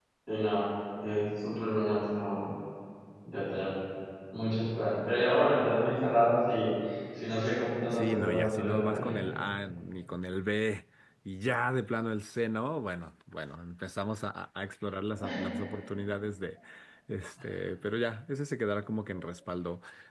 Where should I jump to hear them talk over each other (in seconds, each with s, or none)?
7.9 s